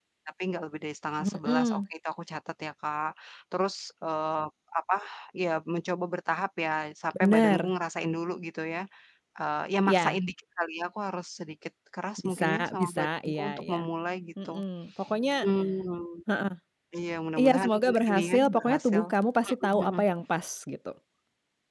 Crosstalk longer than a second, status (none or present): present